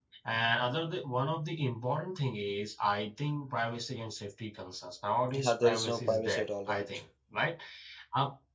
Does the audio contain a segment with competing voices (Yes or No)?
Yes